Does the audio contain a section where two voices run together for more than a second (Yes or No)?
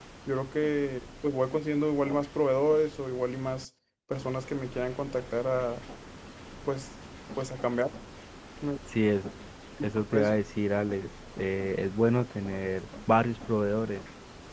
No